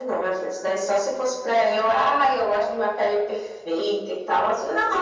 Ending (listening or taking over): taking over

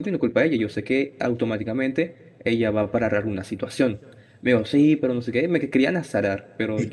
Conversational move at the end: taking over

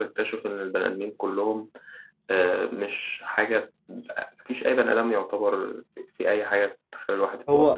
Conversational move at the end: taking over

